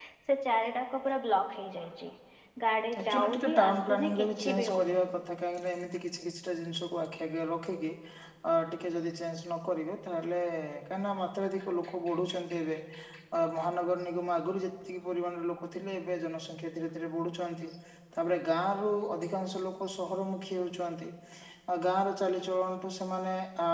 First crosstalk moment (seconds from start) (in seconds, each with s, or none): 3.1 s